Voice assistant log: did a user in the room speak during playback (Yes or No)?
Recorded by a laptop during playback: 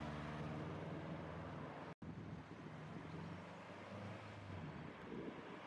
No